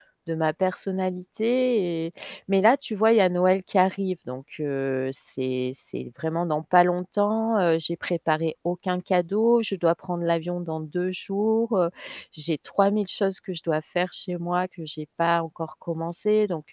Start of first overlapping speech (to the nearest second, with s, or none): none